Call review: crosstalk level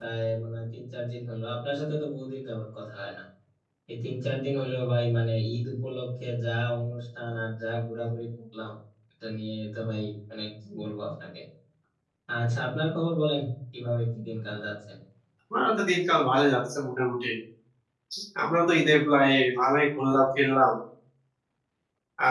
none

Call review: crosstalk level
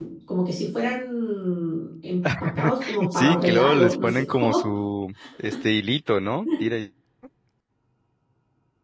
present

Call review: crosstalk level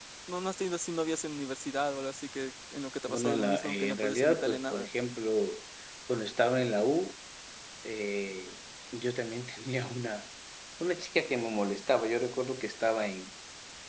present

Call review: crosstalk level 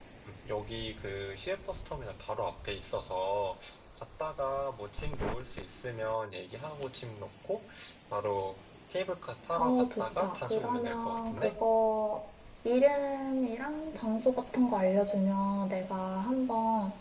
present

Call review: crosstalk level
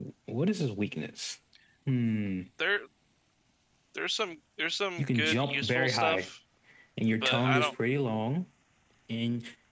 present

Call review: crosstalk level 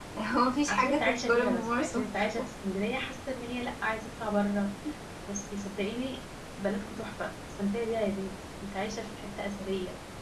present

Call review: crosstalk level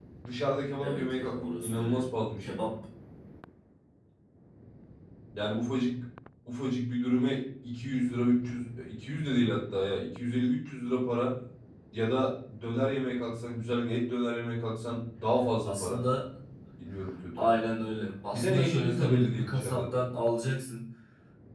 present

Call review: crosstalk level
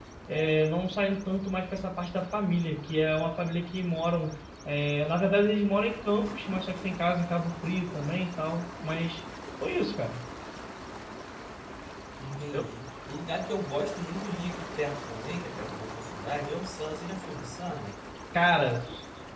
none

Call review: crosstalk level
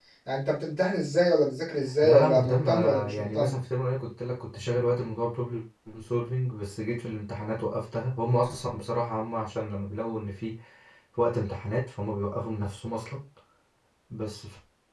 present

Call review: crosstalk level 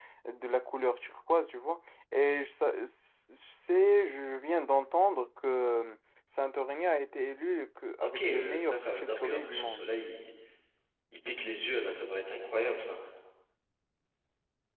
present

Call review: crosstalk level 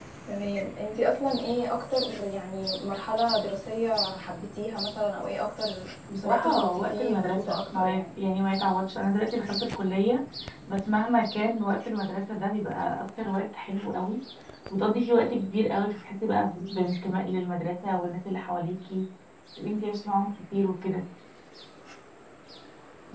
present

